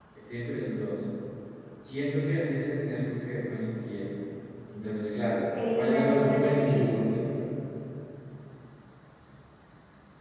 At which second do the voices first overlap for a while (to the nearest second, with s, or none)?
6 s